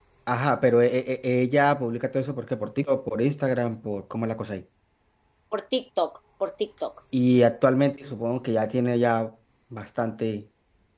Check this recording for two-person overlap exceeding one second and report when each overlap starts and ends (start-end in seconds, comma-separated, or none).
none